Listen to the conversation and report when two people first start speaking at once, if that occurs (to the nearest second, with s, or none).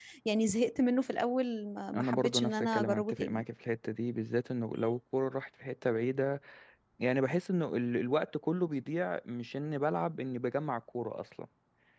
2 s